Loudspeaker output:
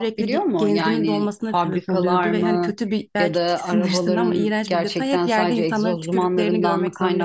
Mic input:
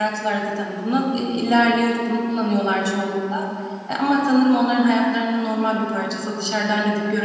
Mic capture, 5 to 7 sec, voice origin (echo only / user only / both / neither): user only